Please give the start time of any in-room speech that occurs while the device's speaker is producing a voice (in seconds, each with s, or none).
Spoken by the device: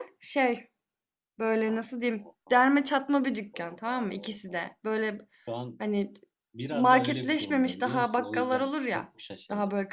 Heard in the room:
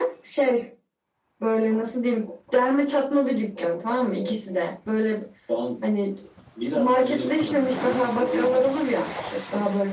none